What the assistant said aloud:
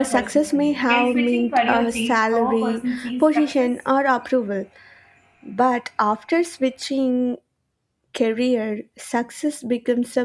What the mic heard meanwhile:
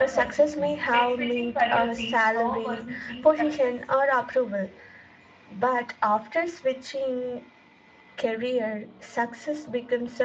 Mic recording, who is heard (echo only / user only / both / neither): echo only